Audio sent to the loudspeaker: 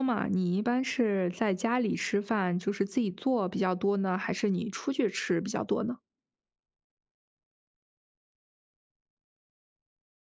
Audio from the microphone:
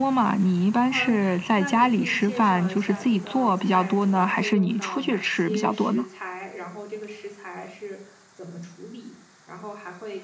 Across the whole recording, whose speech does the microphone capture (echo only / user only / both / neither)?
both